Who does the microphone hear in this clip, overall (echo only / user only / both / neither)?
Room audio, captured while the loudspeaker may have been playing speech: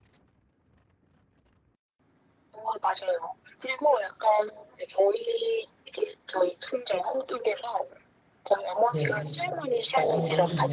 both